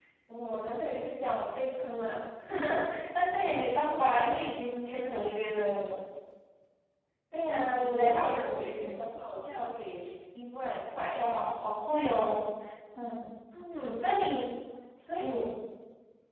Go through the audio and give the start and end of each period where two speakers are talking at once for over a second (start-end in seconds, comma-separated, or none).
7.5-9.0